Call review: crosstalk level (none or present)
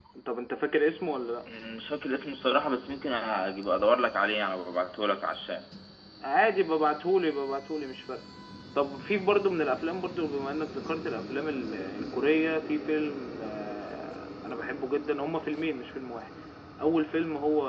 none